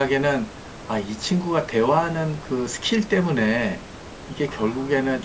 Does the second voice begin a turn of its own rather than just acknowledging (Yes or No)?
No